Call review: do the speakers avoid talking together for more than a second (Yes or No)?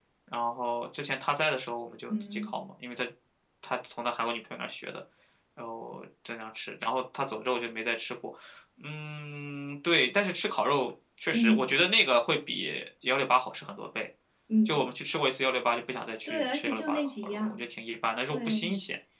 No